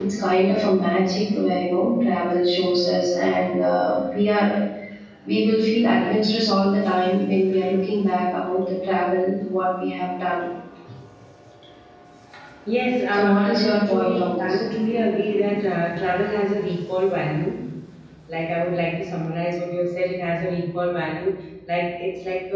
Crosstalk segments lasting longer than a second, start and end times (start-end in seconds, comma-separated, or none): 13.1-14.6